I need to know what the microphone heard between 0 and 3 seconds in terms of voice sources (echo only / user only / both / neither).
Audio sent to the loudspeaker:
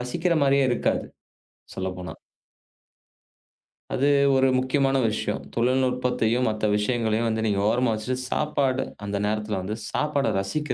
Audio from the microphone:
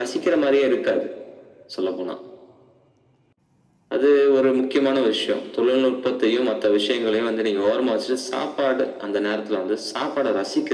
echo only